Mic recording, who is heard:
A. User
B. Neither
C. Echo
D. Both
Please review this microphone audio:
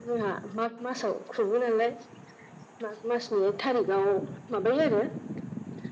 C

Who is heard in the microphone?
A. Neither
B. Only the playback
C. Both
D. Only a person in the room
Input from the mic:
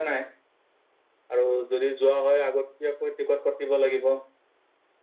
B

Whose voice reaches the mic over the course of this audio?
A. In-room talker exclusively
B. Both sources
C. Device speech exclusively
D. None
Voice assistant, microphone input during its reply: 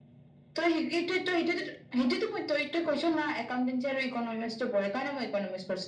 C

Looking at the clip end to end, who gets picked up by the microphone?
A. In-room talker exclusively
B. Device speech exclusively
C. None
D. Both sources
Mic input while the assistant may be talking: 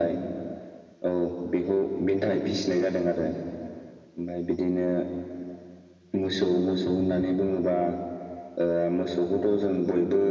B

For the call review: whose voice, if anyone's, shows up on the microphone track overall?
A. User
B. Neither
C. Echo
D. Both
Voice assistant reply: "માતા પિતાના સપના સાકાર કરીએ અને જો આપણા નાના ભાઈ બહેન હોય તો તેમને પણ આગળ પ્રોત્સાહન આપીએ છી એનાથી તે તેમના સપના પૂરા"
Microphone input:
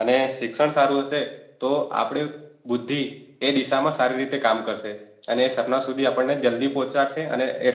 A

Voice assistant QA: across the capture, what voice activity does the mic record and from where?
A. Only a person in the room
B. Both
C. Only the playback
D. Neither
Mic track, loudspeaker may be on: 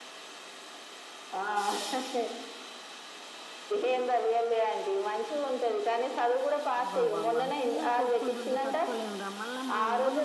B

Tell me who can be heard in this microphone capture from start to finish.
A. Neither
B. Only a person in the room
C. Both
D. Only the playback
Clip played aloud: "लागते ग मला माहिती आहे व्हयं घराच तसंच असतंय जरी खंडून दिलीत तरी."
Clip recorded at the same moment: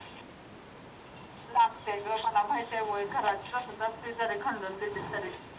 D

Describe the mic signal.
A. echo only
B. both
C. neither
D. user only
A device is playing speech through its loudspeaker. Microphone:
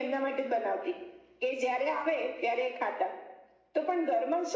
A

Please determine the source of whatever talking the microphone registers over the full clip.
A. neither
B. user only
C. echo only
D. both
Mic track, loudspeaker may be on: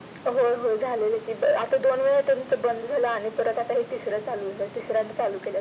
C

